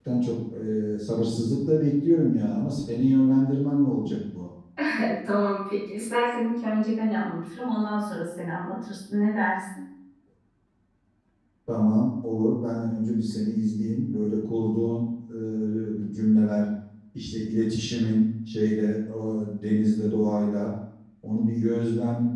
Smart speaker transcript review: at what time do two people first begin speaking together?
none

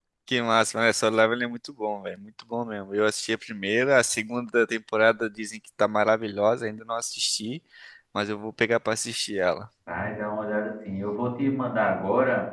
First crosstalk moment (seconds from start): none

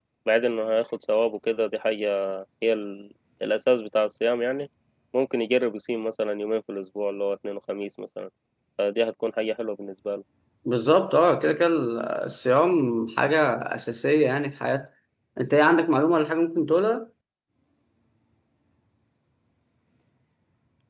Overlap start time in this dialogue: none

